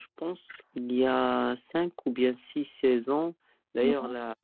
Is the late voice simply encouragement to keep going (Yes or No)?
Yes